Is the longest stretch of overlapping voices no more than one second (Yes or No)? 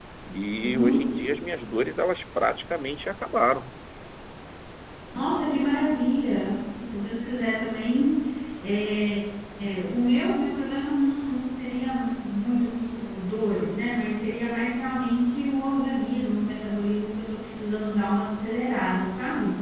Yes